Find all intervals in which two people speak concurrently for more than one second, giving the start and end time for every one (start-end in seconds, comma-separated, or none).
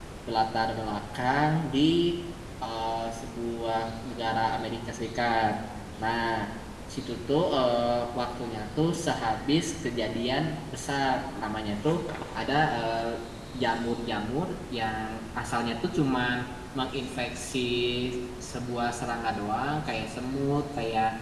none